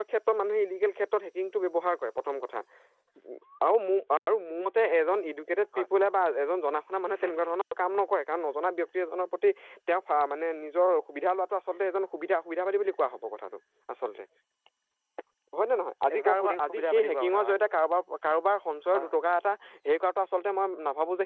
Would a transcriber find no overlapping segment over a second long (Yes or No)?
No